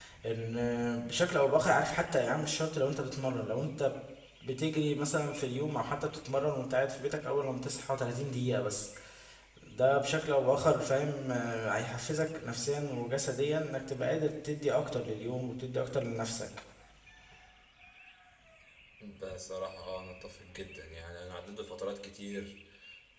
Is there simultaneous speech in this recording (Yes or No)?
No